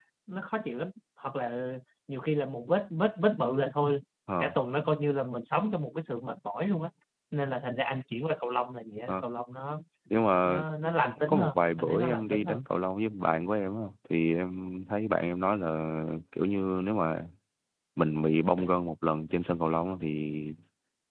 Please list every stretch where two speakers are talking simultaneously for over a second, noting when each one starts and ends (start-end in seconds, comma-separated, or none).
11.3-12.6